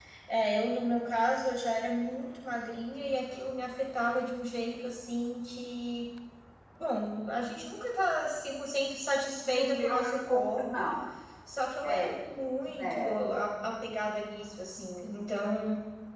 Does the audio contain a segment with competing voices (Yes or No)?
Yes